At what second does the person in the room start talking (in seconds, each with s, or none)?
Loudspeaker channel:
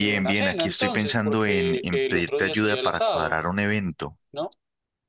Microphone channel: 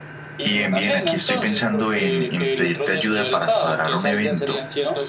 3.6 s